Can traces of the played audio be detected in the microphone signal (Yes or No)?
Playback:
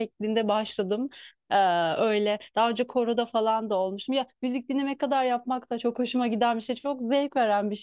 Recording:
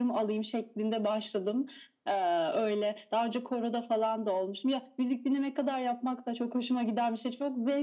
Yes